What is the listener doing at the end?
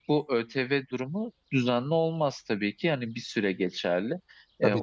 listening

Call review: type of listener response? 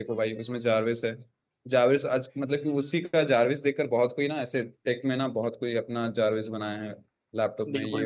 taking over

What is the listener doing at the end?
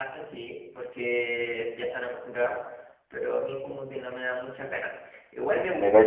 listening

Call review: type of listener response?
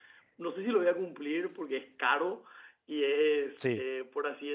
listening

